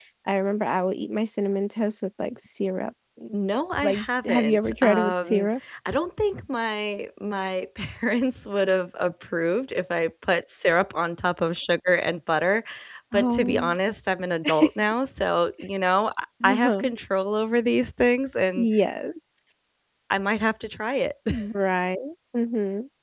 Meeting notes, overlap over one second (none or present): present